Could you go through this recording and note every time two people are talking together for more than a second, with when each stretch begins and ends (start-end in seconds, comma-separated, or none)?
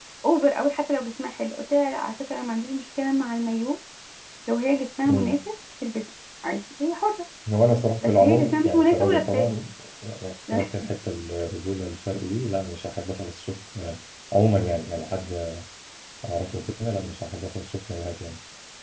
8.0-9.5